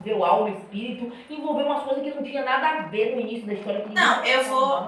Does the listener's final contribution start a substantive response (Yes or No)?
Yes